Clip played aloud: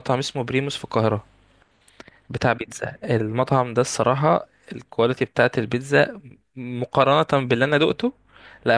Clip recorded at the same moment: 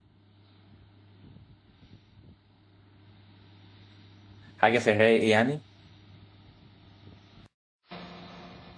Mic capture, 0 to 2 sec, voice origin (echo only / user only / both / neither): neither